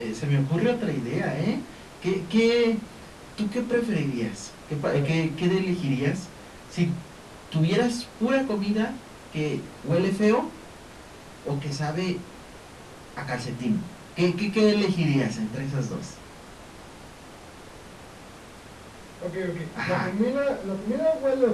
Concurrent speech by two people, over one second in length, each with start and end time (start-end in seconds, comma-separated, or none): none